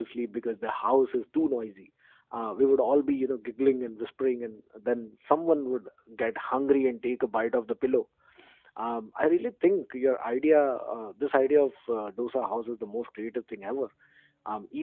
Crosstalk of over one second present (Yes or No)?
No